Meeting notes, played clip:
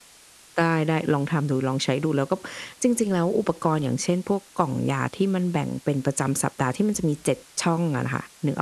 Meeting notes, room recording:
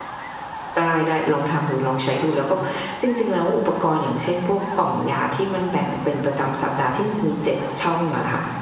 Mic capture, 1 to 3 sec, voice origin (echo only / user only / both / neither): echo only